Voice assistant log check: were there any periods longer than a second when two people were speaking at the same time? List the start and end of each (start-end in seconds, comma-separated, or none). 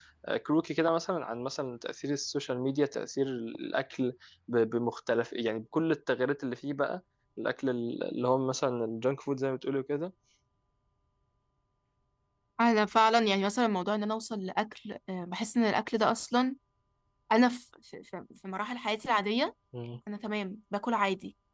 none